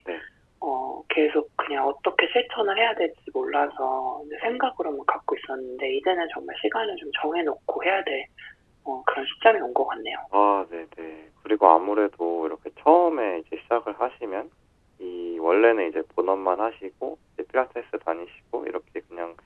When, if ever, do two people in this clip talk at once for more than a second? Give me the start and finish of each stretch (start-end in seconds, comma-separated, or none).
none